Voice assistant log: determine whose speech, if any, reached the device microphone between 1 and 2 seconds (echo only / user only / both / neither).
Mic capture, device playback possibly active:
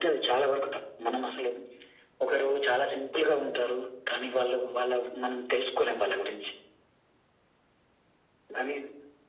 echo only